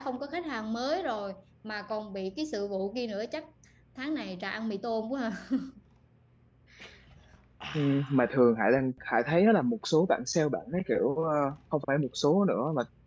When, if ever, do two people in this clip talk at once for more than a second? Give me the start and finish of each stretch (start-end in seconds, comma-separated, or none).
none